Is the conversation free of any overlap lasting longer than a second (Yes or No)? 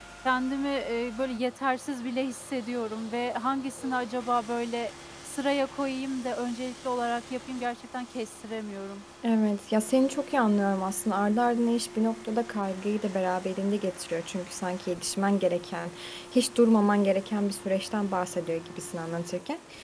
Yes